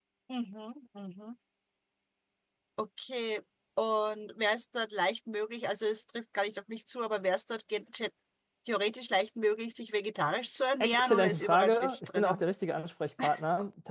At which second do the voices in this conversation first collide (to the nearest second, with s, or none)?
11 s